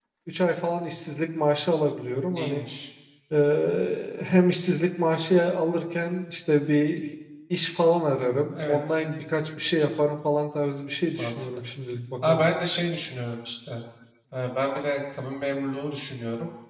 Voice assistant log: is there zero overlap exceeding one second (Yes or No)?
Yes